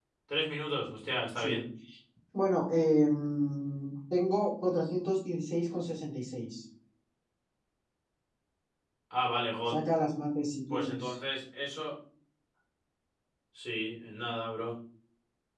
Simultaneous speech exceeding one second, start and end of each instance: none

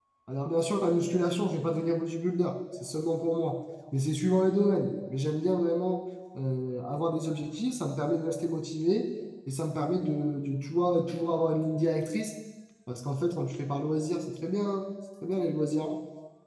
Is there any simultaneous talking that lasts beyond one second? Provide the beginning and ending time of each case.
none

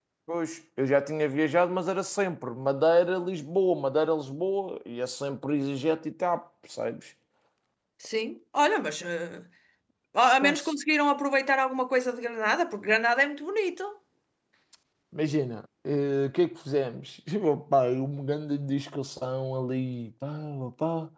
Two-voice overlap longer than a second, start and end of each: none

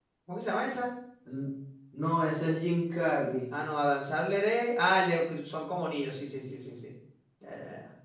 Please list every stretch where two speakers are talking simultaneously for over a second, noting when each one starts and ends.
none

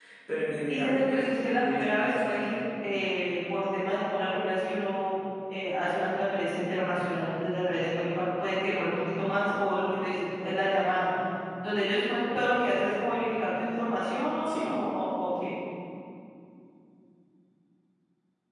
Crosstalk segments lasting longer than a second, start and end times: 0.7-2.5

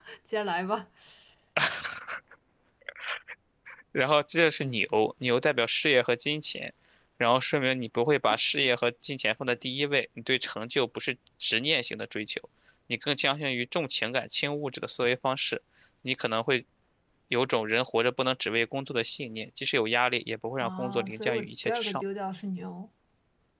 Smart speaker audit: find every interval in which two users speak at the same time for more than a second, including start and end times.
20.6-22.0

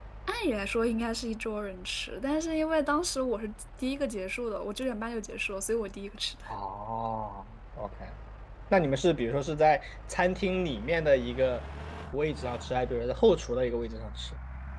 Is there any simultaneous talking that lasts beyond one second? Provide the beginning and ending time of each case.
none

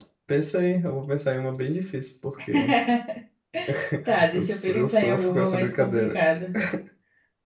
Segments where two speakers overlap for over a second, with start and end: 4.3-6.2

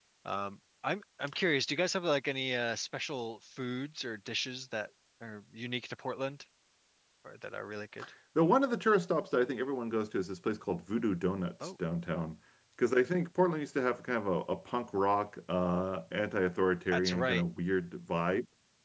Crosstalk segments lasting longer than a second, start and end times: none

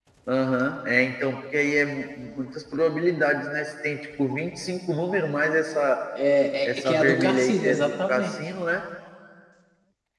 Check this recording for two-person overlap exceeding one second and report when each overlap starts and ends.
6.8-8.4

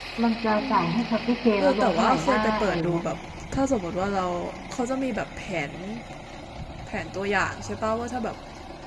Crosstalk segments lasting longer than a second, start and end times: 1.6-3.0

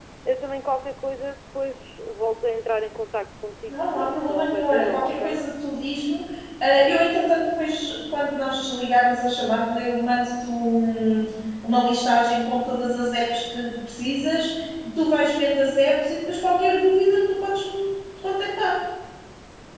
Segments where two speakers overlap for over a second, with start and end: 3.7-5.4

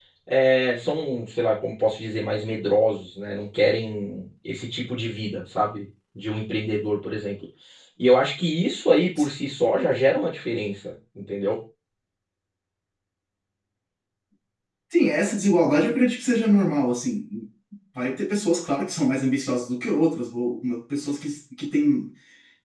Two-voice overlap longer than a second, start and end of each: none

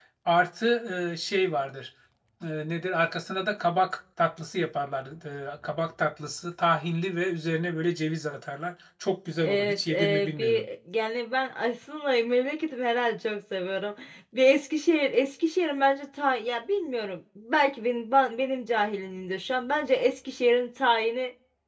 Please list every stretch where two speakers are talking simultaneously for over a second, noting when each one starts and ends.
9.4-10.7

